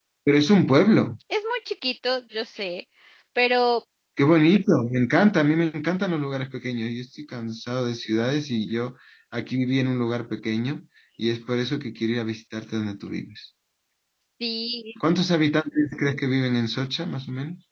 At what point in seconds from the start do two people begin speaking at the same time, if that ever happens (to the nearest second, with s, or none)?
none